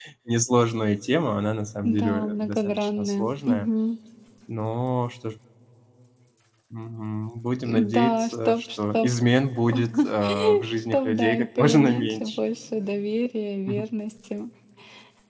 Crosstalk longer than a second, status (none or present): present